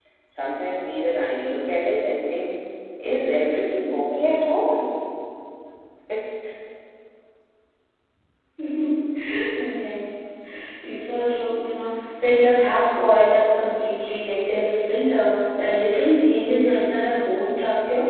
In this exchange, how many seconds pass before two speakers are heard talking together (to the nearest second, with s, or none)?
none